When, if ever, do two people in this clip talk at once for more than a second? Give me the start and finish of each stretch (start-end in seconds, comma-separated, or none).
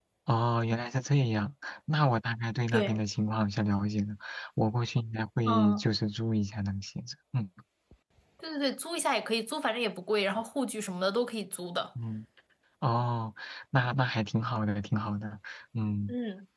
none